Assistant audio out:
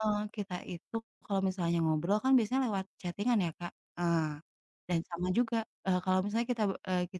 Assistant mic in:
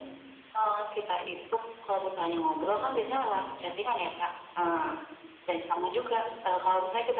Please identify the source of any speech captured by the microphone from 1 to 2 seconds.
echo only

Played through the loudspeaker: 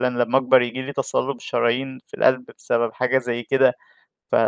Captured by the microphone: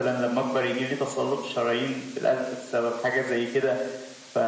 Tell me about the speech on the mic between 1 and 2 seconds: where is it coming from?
echo only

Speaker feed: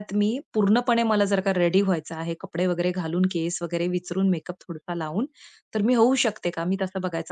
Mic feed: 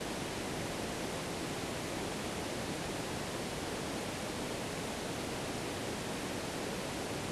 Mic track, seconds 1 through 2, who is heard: neither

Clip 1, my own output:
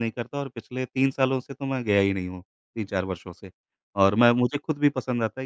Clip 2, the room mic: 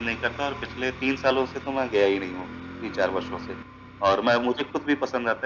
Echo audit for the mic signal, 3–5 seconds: echo only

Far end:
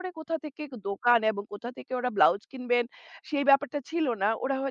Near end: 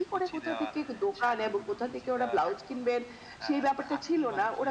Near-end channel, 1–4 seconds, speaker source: both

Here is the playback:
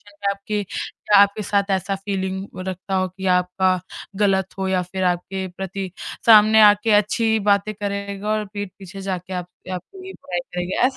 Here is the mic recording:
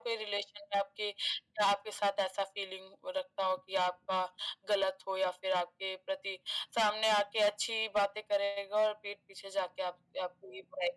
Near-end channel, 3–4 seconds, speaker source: echo only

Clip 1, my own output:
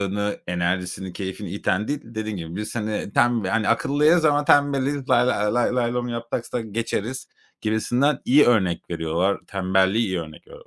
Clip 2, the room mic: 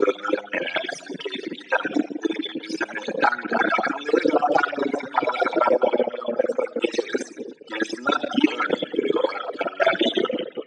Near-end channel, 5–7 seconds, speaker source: echo only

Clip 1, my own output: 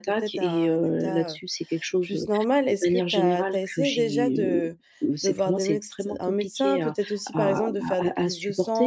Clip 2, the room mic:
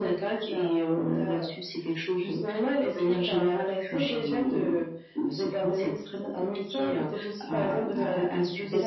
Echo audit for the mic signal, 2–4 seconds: echo only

